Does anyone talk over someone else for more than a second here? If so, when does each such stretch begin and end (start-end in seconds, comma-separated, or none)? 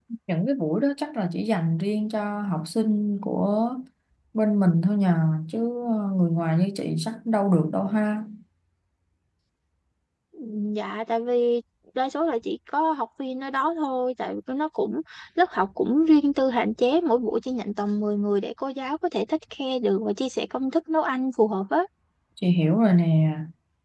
none